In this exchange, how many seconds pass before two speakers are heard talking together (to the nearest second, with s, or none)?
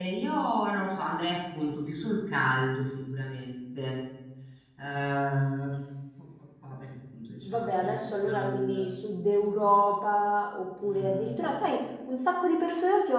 7 s